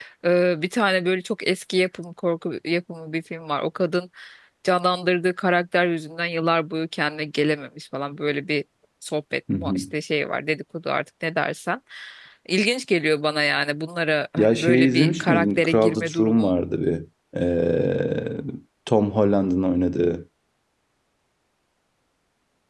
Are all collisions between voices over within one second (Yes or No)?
No